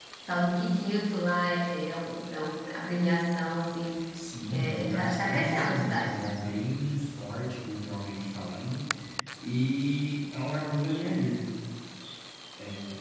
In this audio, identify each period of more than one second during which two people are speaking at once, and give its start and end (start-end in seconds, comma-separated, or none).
4.5-6.2